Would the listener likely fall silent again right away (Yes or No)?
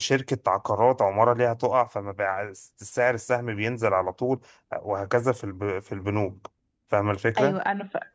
No